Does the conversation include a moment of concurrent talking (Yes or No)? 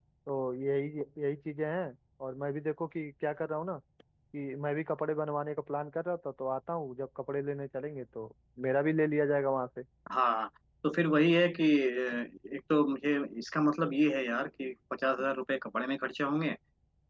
No